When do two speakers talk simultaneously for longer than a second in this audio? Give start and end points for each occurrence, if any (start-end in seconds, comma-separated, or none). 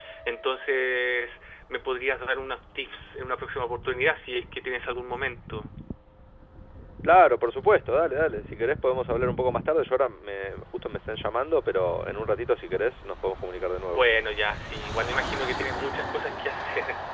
none